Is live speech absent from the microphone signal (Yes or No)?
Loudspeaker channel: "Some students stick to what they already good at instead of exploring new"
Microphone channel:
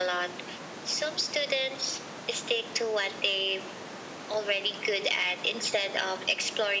Yes